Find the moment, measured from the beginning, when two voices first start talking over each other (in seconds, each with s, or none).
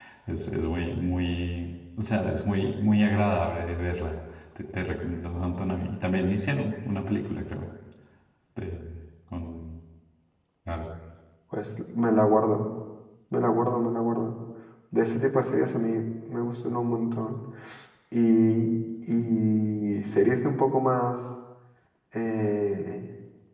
none